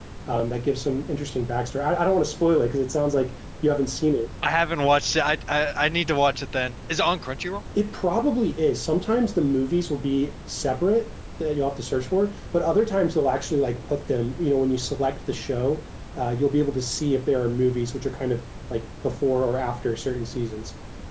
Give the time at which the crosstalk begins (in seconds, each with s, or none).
none